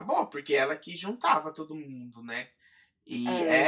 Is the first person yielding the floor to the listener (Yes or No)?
No